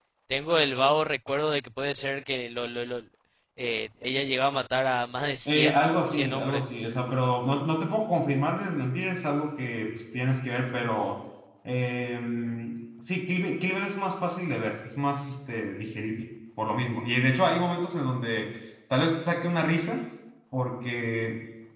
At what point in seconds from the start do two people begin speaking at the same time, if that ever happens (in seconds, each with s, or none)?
5.5 s